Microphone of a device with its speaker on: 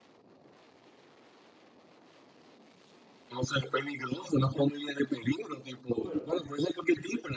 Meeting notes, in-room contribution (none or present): present